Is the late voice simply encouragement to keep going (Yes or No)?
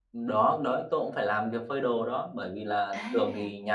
Yes